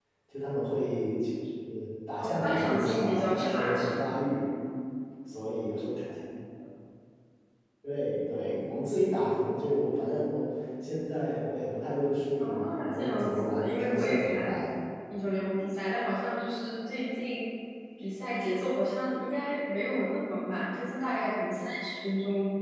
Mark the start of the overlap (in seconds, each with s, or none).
2.2 s